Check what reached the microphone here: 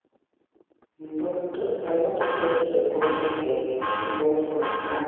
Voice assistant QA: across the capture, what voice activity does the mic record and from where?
user only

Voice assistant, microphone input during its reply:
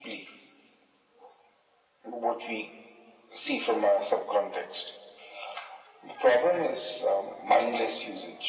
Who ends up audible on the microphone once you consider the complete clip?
echo only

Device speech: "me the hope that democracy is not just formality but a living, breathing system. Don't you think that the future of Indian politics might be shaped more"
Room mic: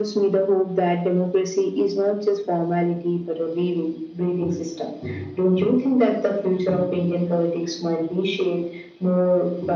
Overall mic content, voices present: echo only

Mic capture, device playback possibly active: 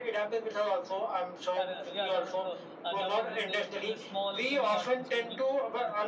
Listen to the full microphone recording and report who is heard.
both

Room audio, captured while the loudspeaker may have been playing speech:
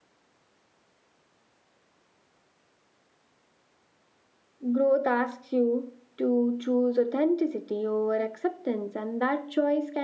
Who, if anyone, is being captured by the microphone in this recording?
user only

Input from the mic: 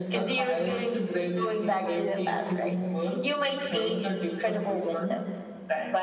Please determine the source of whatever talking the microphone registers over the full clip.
echo only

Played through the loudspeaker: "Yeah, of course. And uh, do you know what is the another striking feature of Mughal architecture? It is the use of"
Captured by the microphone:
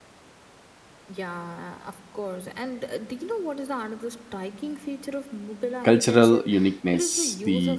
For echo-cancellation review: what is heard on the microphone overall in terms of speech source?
both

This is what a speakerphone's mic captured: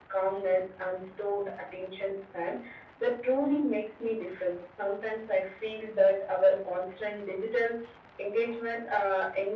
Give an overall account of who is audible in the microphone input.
echo only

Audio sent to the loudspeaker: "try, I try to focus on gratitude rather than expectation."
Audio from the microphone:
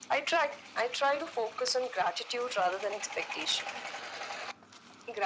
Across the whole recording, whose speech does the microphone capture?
echo only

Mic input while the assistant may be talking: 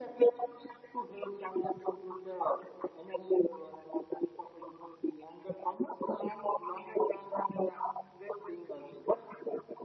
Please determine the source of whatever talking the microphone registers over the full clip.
echo only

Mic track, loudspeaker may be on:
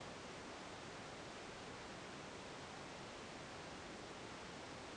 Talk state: neither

